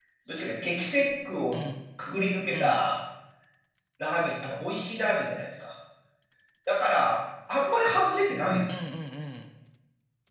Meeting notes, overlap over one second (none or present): none